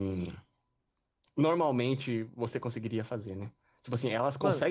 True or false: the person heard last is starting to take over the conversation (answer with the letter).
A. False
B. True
A